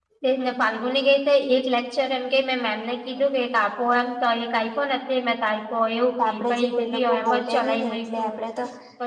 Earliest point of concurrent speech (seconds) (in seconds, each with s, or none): 6.2 s